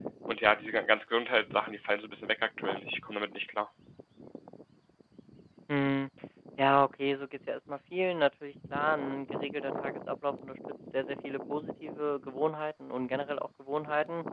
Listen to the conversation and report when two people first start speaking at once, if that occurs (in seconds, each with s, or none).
none